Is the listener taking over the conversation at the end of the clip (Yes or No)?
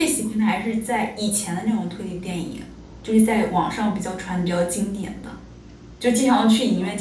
No